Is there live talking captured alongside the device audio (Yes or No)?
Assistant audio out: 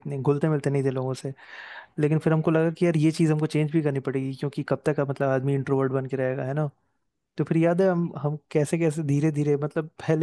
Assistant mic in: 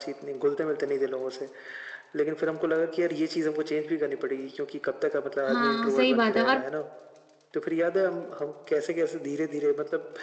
Yes